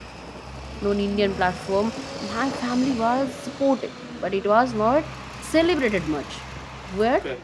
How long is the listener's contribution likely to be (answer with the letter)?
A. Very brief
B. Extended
A